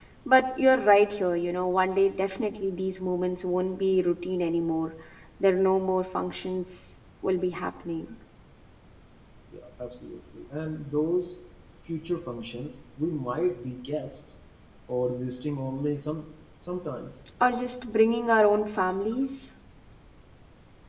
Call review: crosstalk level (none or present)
none